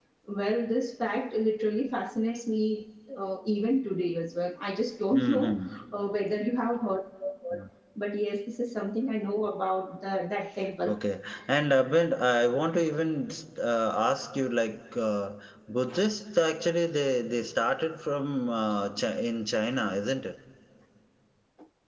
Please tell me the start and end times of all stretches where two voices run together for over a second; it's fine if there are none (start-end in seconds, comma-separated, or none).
none